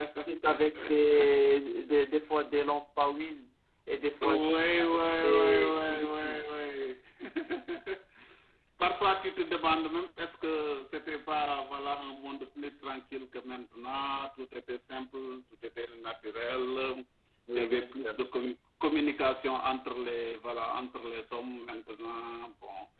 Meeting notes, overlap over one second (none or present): present